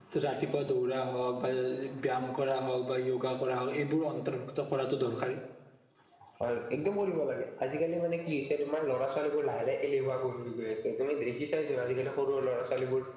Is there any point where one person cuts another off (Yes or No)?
No